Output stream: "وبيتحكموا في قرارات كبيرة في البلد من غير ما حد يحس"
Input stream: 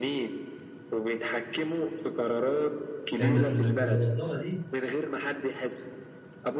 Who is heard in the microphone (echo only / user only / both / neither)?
both